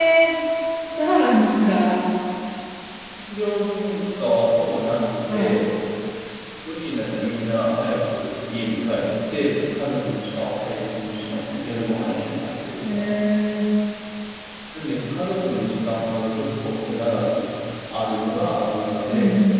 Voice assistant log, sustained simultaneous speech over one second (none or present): none